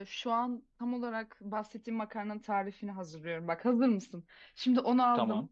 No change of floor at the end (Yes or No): Yes